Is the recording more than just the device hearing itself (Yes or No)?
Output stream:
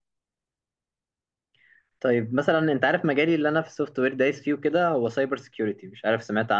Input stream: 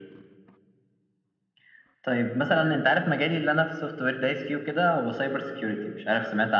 No